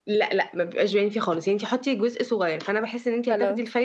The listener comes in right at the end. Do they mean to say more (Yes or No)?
No